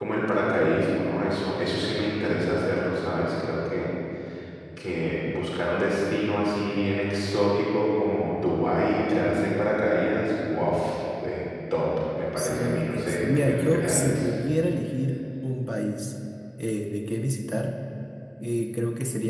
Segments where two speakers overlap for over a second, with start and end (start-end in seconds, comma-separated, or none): 12.3-14.3